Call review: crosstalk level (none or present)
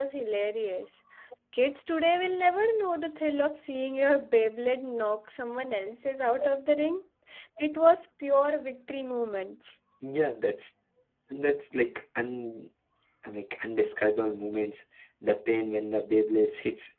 none